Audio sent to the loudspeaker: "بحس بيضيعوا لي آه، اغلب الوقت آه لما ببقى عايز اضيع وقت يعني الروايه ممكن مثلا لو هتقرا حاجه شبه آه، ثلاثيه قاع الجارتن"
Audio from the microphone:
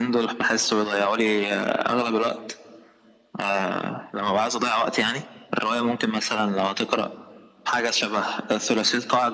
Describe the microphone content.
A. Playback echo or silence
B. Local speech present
A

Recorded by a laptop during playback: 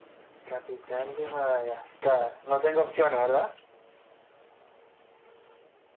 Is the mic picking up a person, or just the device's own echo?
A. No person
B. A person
A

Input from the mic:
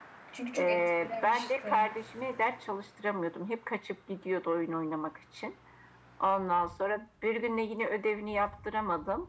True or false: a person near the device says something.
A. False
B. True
B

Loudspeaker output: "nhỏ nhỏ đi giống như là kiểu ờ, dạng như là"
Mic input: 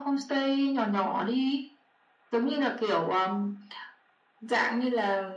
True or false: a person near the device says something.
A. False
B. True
B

